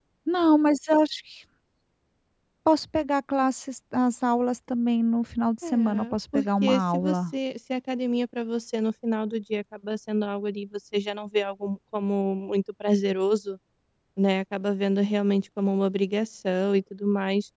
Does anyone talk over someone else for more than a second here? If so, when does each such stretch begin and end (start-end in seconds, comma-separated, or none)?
5.7-7.2